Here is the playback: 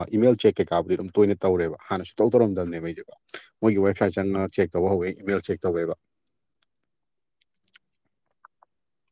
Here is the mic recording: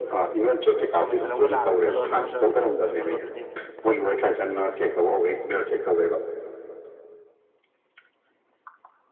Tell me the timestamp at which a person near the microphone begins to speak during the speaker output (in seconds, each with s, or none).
0.9 s